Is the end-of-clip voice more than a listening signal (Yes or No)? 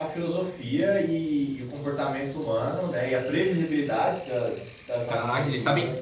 Yes